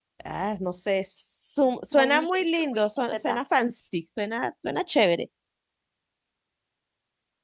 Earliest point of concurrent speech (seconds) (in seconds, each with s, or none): 1.9 s